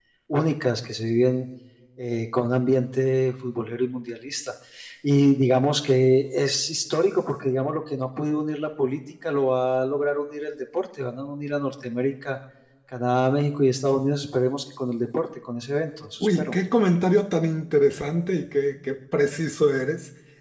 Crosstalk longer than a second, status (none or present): none